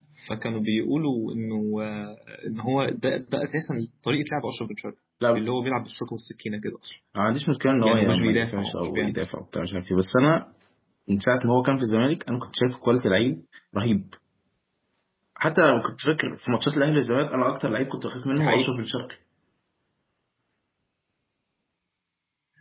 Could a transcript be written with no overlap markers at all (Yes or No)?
No